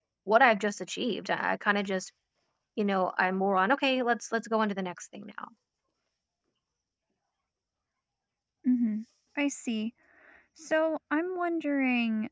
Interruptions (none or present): none